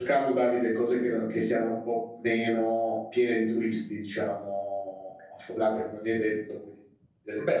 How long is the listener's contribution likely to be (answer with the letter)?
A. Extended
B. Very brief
A